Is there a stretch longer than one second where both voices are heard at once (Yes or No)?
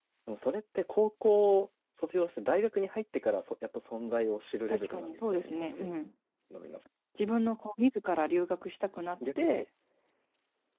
Yes